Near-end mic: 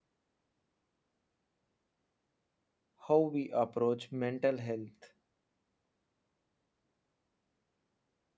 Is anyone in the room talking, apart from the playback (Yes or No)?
Yes